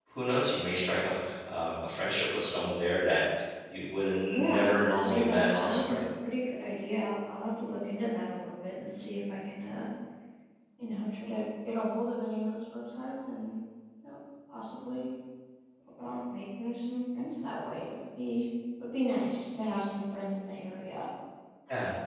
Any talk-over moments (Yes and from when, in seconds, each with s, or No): Yes, from 4.3 s